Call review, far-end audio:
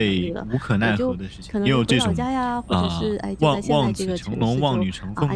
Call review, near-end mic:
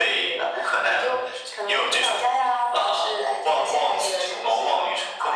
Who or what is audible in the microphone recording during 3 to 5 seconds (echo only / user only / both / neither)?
echo only